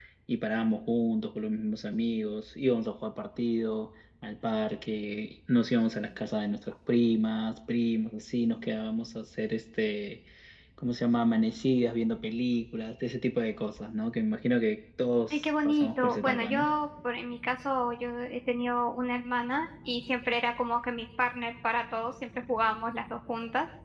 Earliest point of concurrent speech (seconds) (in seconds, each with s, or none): 15.3 s